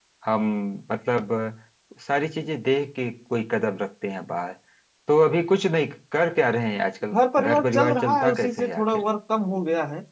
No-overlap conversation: No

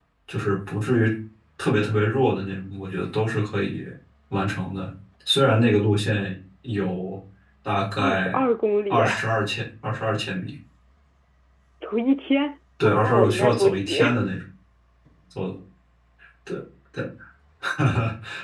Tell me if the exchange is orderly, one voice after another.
No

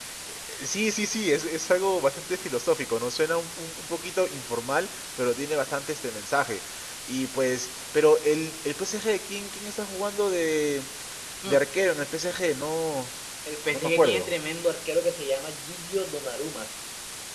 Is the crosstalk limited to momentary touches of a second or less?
Yes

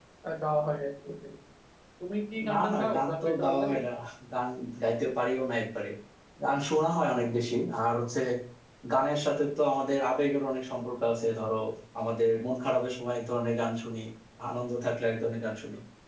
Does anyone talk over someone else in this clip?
Yes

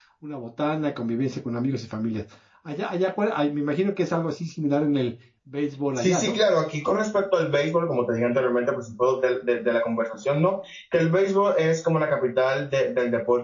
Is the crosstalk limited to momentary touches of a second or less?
Yes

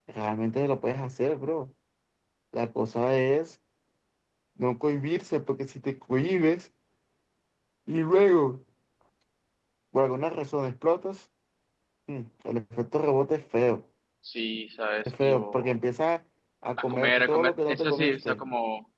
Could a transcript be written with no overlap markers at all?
No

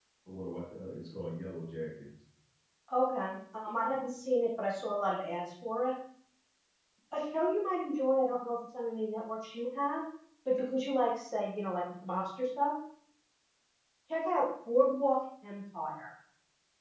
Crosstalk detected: No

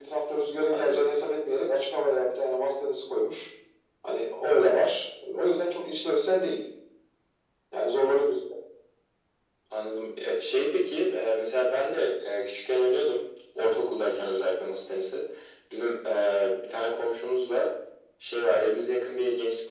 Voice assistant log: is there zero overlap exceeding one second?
Yes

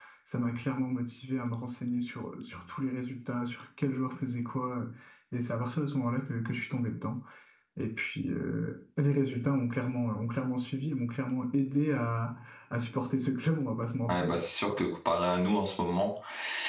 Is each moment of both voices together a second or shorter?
Yes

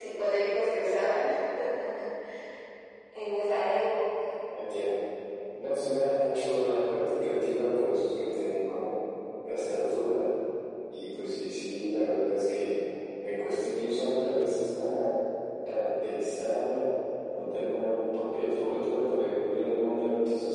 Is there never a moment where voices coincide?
Yes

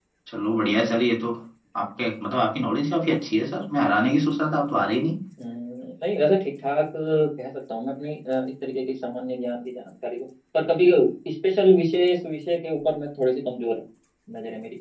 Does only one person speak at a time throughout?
Yes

